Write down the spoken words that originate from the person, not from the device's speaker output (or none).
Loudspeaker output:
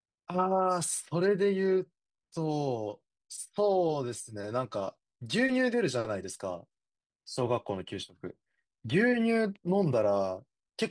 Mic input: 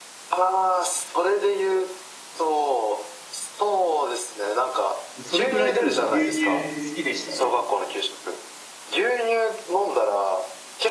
それくらいでも牛乳好きでしたね。